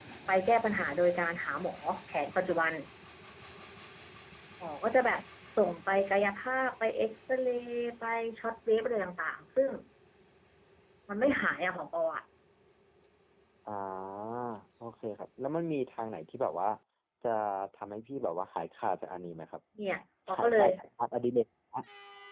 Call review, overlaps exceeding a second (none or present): none